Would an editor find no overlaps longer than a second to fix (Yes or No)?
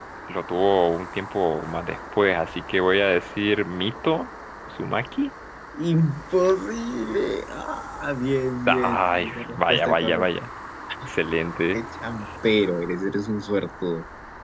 No